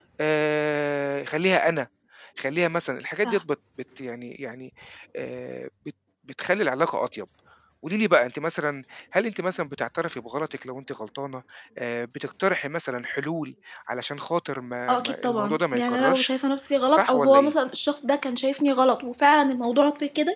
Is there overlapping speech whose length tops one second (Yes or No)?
Yes